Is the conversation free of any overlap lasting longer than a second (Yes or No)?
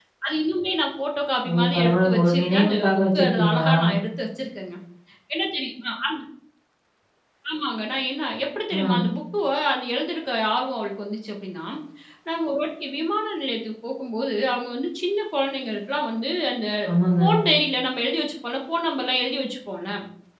No